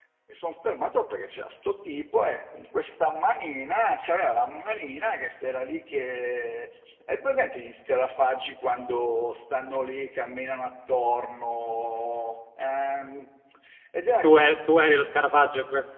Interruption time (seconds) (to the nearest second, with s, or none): none